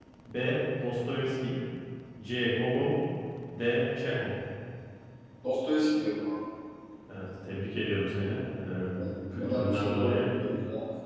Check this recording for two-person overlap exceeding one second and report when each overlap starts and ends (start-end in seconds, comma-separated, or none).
8.9-10.1